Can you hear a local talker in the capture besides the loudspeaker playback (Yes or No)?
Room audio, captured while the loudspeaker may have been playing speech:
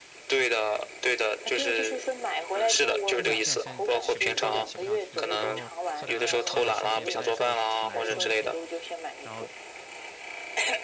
Yes